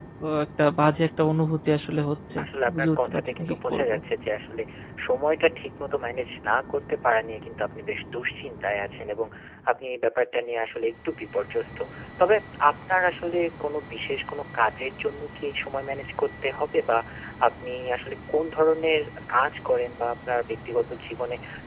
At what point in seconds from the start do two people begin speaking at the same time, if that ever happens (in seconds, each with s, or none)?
2.4 s